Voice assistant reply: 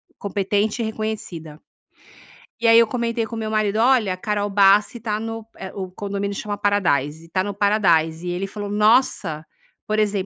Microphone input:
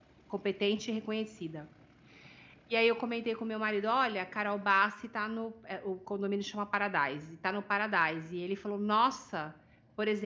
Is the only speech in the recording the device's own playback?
Yes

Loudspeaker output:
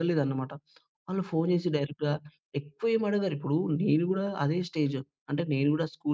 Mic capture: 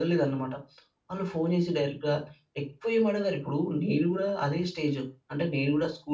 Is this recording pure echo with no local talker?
Yes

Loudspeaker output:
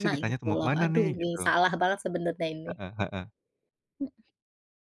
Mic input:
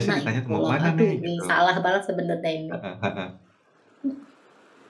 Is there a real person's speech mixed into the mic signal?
No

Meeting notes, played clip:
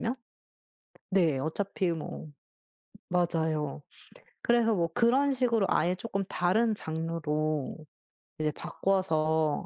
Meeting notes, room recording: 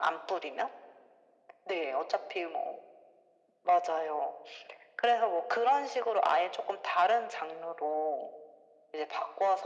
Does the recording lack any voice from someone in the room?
Yes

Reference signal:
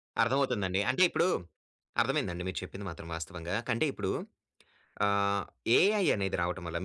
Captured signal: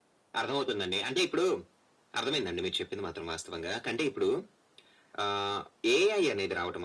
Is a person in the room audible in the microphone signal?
No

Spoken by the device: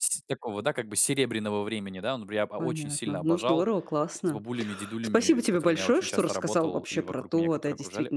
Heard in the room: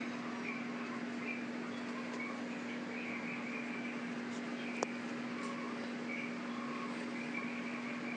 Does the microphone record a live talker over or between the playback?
No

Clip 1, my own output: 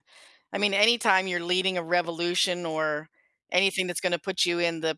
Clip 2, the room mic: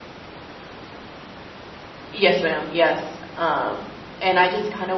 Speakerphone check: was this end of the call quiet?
No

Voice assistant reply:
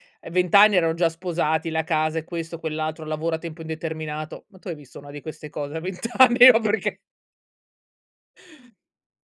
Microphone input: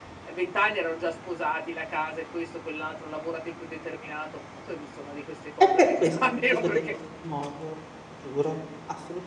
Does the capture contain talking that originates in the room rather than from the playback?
Yes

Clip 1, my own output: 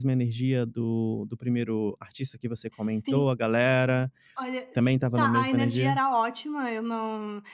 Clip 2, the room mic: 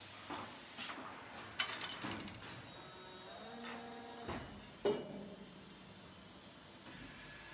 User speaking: No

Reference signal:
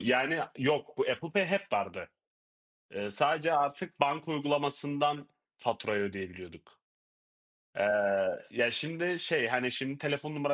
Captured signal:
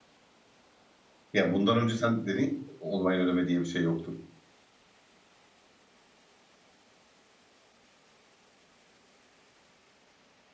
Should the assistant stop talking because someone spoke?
Yes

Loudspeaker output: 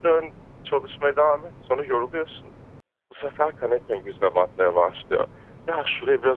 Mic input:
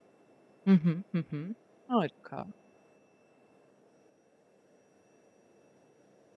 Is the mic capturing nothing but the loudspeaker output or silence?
No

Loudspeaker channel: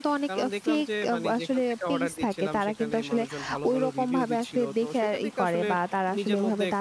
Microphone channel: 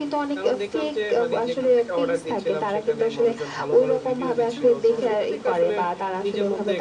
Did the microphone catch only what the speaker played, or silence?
No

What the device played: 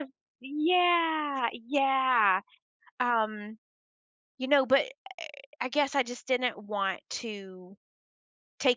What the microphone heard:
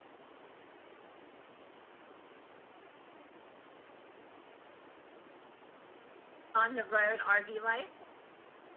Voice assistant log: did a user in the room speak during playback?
Yes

